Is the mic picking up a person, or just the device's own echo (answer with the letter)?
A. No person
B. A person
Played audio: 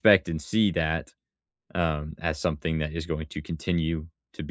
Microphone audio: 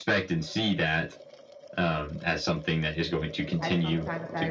B